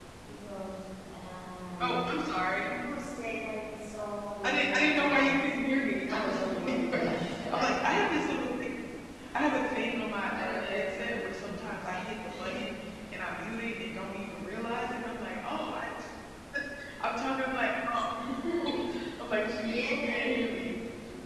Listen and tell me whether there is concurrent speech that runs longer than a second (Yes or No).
Yes